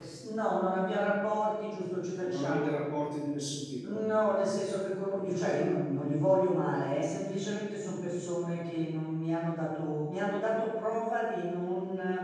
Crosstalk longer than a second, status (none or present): none